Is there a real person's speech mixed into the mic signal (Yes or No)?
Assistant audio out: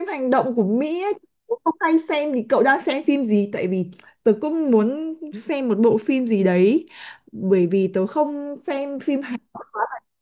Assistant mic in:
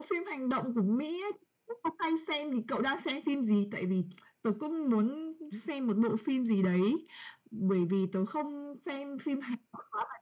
No